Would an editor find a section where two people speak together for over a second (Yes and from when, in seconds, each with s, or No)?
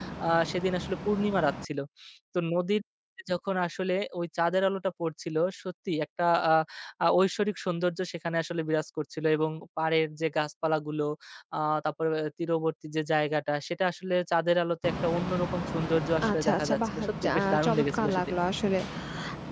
Yes, from 16.2 s